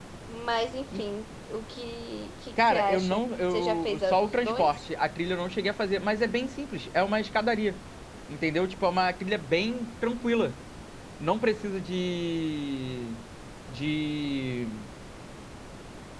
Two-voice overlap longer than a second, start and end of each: 2.6-4.8

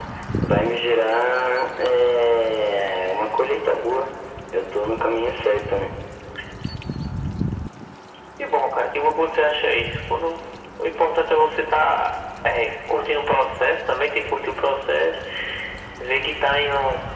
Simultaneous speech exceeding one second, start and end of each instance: none

